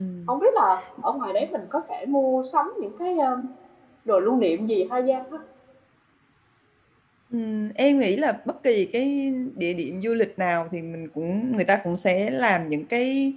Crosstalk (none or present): none